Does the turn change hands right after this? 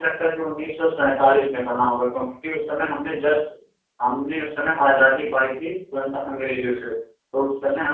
No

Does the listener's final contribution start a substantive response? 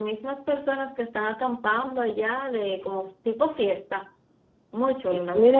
Yes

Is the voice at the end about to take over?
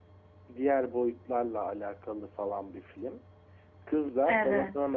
No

